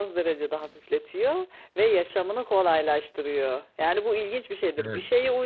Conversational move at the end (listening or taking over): listening